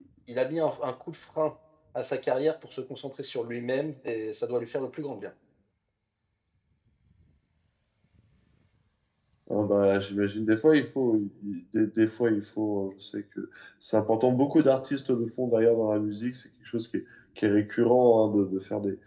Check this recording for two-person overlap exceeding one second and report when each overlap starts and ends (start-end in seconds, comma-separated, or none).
none